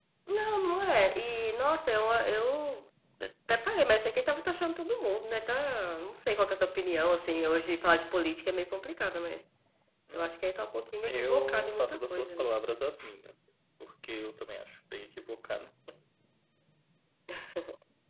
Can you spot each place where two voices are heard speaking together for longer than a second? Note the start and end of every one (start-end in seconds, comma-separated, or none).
11.1-12.5